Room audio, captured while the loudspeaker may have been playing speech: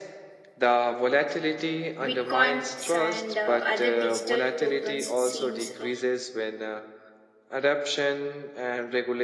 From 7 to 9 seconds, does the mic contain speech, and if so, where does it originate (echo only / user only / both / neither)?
echo only